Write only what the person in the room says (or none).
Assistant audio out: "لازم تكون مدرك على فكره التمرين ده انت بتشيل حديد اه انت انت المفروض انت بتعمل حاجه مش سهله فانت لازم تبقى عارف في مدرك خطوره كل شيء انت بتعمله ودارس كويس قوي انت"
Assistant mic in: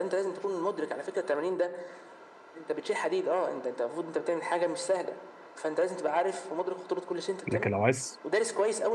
لكن لو عايز